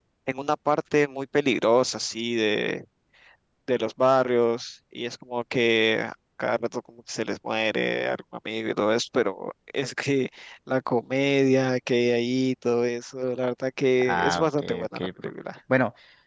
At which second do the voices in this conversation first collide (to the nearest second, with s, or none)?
14 s